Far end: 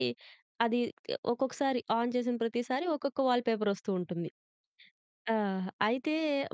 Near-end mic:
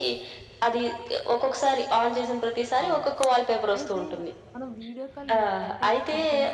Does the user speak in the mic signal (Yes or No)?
Yes